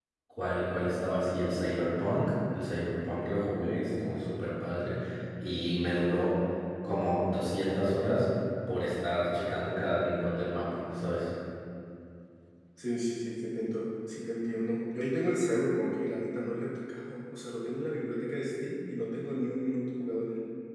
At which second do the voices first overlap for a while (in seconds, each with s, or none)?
none